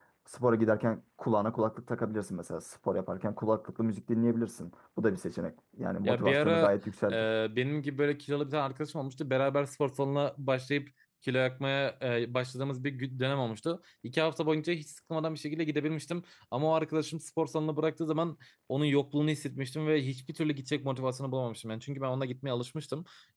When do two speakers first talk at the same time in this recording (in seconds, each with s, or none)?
6.0 s